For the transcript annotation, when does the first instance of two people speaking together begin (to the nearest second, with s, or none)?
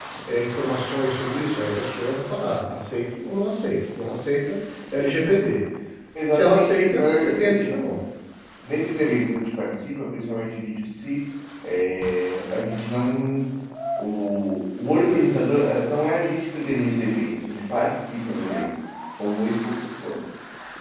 6 s